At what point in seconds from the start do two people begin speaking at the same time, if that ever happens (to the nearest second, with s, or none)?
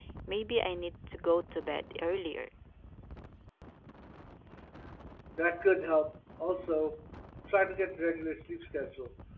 none